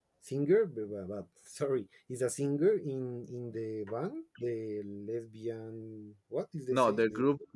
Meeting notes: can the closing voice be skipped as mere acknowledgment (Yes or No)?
No